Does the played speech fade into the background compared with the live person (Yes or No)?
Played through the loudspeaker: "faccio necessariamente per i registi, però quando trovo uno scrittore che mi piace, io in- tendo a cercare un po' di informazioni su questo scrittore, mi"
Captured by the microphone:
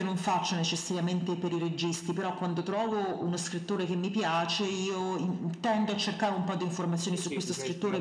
No